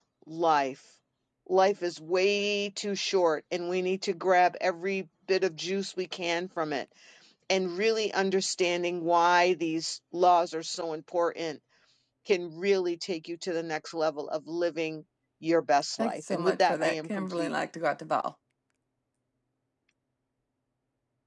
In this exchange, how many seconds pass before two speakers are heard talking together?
16.0 s

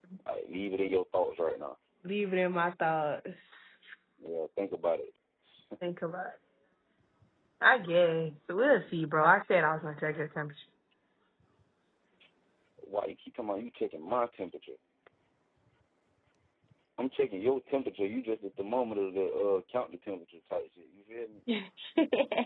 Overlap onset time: none

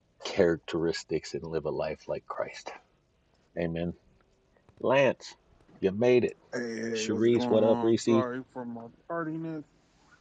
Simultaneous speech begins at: 7.0 s

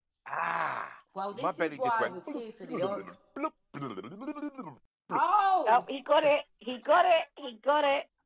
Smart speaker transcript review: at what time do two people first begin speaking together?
1.1 s

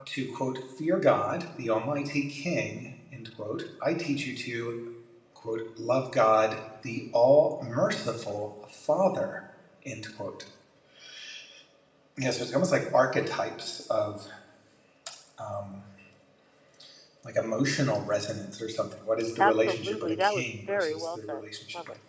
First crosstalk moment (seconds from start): 19.4 s

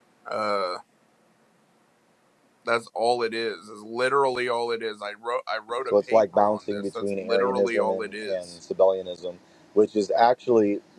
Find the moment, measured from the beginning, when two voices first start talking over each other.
5.9 s

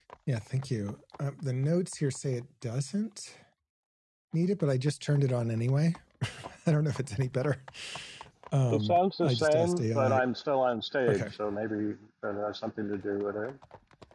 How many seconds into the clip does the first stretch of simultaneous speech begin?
8.7 s

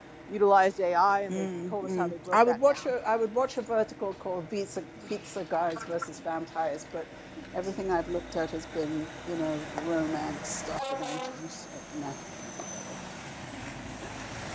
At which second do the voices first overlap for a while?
1.3 s

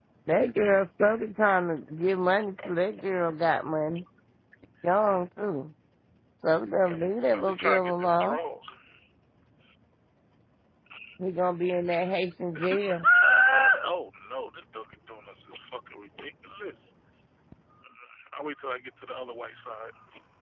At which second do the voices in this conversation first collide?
7.1 s

